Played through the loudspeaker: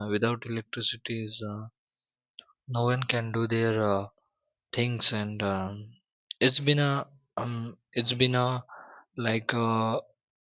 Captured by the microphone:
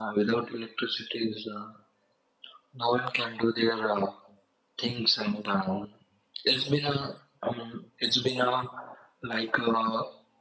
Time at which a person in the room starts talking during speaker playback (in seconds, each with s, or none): none